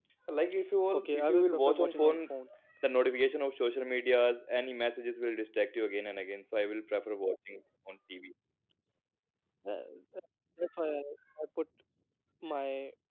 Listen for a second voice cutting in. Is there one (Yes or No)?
Yes